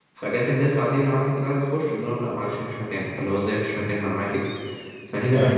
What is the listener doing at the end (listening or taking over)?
listening